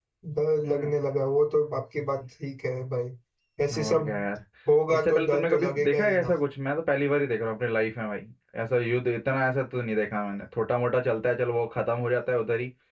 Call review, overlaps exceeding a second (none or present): present